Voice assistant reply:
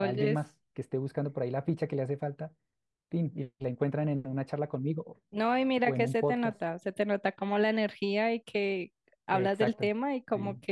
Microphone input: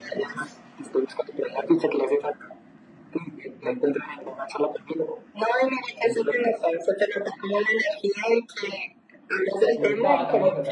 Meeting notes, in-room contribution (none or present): present